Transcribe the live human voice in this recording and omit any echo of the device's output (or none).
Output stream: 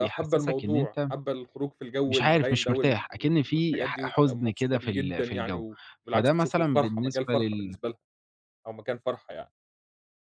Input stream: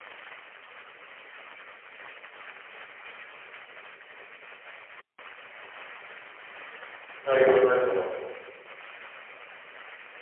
أيوه حلو، آه.